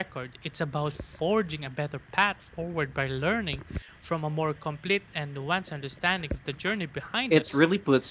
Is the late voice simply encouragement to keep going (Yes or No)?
No